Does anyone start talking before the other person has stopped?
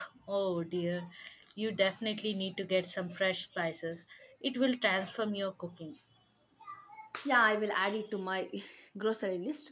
No

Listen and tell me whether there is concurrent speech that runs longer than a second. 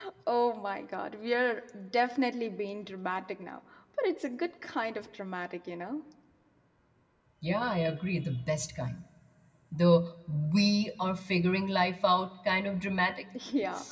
No

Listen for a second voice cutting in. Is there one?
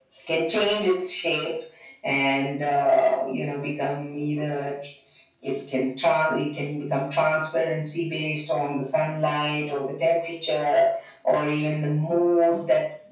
No

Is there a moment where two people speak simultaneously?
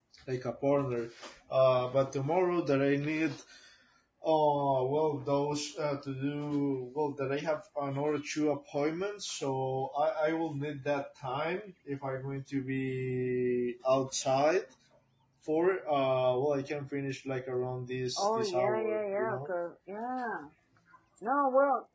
Yes, from 18.2 s

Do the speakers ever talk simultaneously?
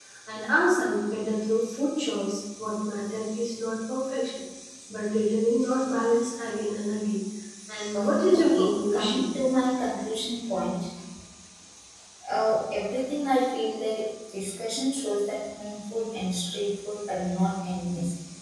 Yes, from 7.9 s

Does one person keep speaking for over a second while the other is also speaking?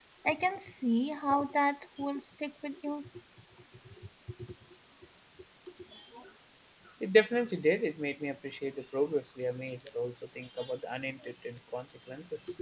No

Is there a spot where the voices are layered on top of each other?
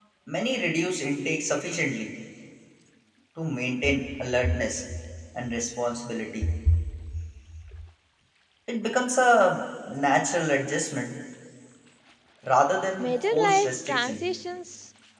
Yes, from 13.0 s

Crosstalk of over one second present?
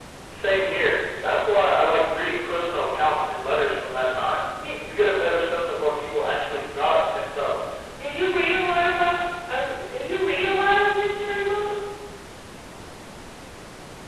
No

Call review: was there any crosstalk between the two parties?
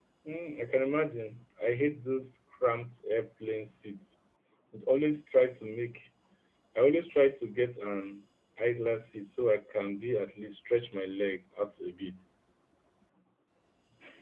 No

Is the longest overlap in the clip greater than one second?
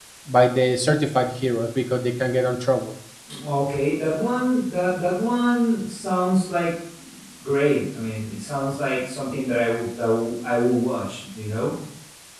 No

